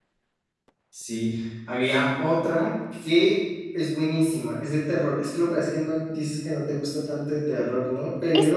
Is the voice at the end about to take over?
Yes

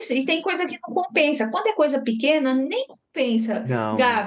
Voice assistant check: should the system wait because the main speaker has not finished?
Yes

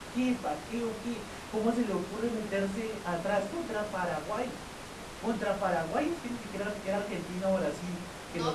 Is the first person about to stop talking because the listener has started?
Yes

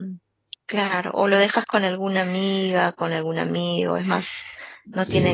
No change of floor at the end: Yes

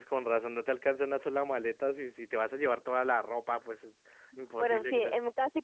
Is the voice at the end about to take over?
Yes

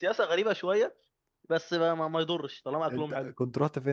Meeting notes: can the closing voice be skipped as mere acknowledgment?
No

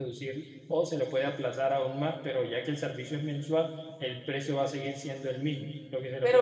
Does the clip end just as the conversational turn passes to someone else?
Yes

